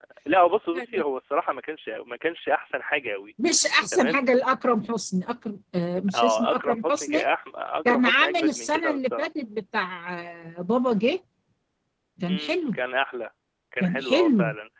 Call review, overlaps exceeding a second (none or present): present